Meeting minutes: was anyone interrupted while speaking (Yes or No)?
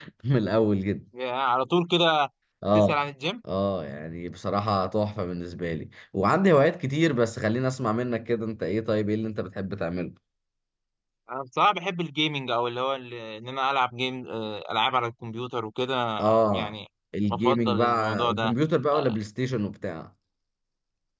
Yes